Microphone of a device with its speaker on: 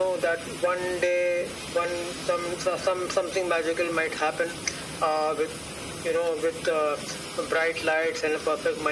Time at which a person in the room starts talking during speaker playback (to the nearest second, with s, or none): none